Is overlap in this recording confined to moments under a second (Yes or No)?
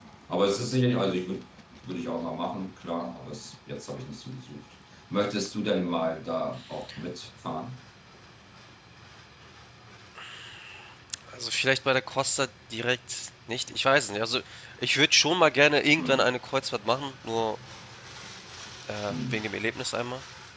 Yes